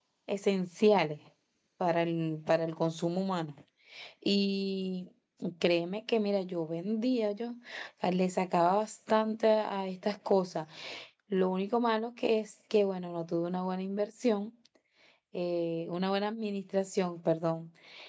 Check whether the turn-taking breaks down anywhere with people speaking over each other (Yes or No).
No